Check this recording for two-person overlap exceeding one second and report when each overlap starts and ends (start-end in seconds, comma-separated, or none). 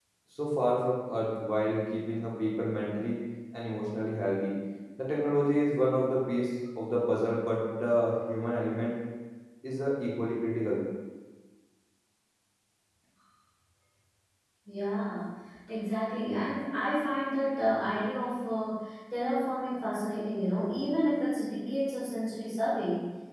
none